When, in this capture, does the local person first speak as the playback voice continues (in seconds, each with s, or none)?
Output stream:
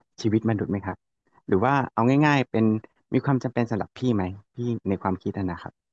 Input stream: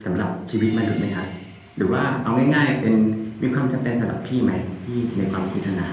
none